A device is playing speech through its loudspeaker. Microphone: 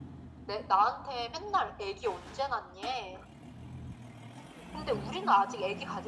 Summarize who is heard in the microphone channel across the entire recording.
echo only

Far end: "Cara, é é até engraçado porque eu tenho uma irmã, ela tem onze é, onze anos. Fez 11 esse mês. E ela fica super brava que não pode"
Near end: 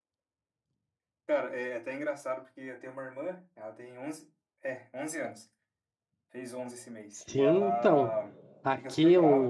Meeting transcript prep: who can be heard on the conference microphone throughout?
both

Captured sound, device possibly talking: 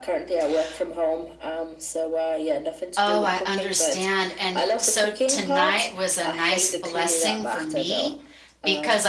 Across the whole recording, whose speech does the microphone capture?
both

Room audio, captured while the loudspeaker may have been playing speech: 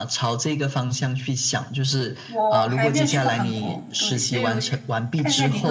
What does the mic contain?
both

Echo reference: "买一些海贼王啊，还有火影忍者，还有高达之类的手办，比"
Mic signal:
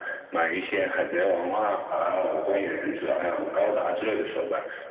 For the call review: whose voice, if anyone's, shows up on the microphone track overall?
echo only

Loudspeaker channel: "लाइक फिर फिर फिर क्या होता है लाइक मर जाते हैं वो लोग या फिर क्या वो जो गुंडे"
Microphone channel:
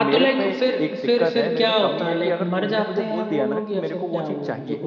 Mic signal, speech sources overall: both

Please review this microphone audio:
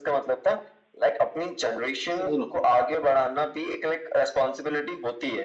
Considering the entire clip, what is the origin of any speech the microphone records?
both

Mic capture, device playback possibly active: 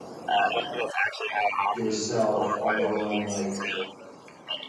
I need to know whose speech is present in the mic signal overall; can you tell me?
both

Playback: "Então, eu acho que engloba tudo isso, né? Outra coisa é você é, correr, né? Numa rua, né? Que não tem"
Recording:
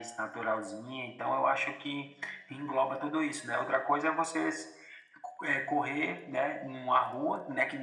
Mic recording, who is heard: echo only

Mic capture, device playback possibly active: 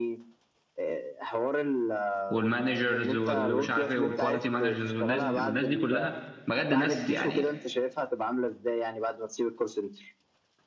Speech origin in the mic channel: both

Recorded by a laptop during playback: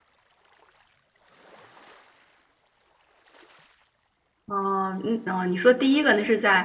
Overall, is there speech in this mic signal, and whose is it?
user only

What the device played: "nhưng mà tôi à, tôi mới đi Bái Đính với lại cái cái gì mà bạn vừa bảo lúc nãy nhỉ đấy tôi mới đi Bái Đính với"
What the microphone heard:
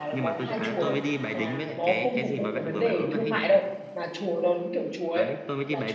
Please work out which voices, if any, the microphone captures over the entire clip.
both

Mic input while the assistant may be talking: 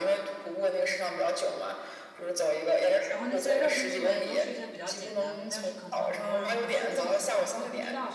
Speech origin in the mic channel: both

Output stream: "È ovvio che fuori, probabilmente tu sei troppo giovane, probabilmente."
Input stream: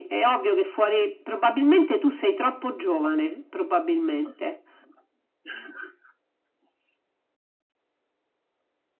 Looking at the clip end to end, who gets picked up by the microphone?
echo only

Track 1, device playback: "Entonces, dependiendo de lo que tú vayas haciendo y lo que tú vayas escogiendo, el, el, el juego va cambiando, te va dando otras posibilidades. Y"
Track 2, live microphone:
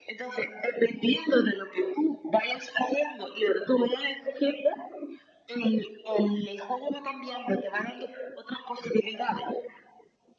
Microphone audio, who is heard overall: echo only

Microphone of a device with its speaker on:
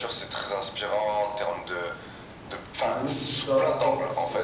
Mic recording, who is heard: both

